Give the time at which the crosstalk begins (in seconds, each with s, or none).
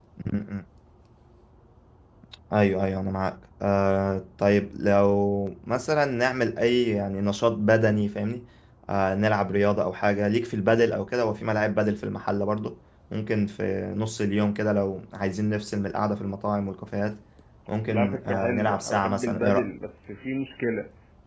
17.9 s